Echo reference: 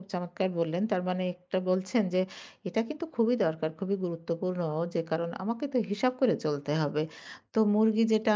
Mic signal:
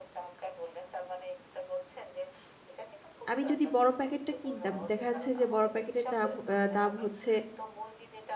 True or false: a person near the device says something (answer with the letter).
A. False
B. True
B